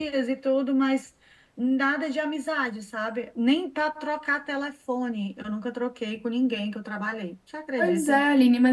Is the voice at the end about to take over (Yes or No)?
Yes